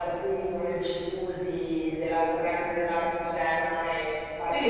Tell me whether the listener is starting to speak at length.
Yes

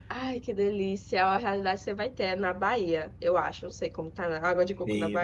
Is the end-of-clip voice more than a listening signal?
Yes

